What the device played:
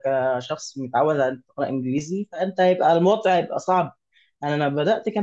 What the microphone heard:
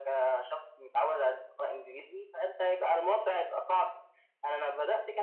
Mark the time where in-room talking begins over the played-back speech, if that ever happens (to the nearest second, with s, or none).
none